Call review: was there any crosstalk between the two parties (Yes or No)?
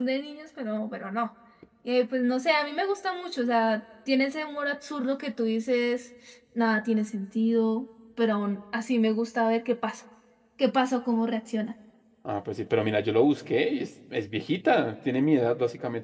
No